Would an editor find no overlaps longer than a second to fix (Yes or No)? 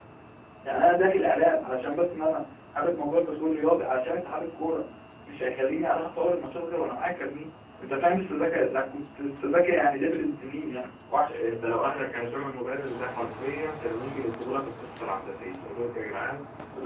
Yes